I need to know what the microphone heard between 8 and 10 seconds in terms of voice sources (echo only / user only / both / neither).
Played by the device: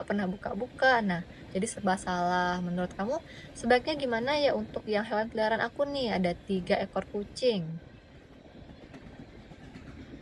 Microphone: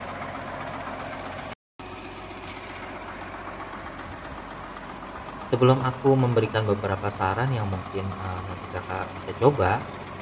user only